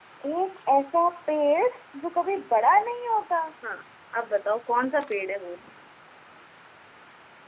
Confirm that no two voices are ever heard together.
Yes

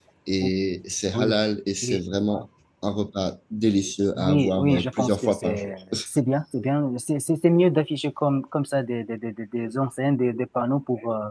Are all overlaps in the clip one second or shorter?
No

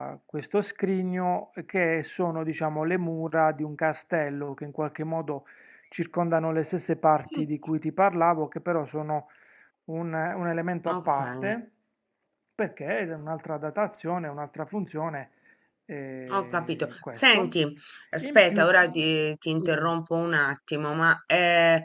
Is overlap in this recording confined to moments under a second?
No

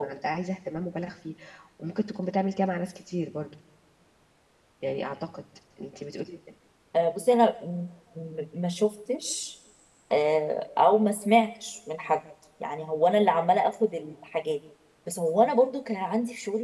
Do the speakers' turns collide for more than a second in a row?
No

